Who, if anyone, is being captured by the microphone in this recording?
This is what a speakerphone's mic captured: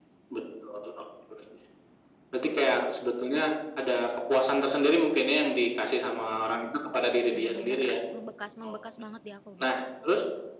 both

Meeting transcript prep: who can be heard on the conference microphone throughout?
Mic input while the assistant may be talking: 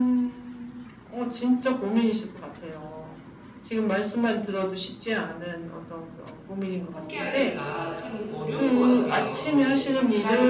both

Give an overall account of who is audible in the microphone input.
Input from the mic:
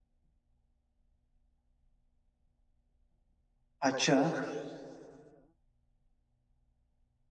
user only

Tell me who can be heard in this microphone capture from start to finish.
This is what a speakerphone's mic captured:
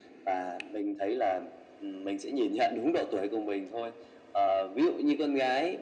echo only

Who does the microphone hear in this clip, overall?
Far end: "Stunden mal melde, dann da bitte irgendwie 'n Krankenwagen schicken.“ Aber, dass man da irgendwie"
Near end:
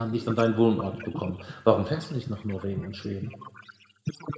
both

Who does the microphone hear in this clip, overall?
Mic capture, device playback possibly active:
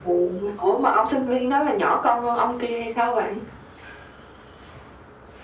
echo only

